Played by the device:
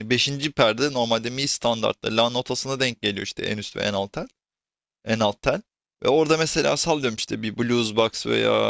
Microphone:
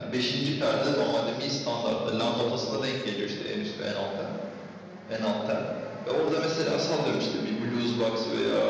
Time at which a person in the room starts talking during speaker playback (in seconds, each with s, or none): 2.0 s